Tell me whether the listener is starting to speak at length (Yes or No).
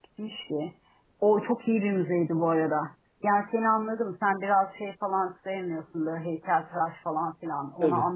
No